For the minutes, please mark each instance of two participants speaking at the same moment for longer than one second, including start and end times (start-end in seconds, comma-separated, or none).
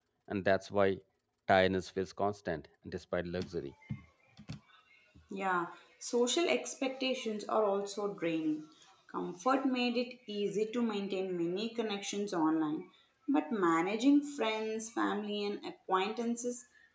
none